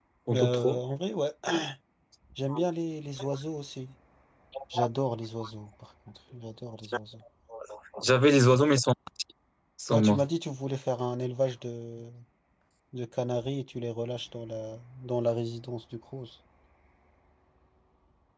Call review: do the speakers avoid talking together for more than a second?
Yes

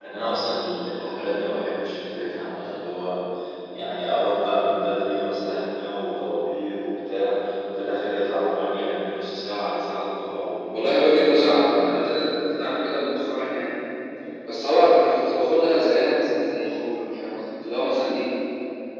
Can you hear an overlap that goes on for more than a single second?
Yes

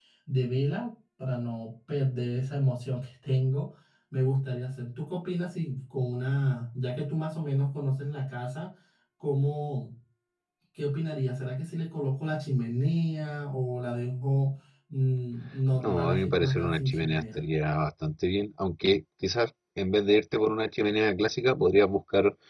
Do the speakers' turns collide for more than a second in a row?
Yes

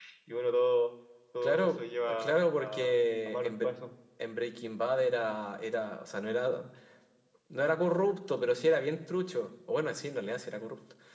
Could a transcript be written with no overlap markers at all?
No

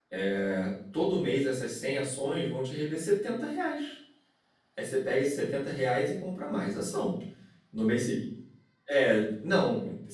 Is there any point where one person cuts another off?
No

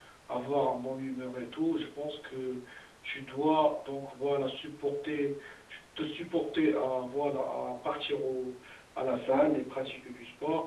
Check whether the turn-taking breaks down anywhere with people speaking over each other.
No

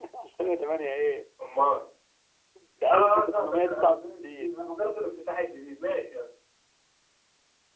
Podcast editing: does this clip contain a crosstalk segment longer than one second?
Yes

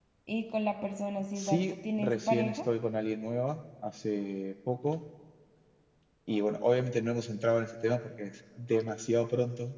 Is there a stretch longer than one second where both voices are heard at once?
Yes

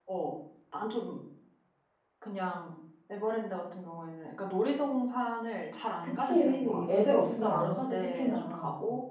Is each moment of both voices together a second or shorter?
No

